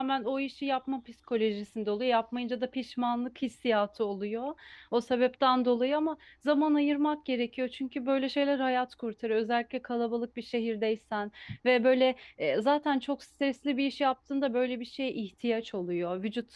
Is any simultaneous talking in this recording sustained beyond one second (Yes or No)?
No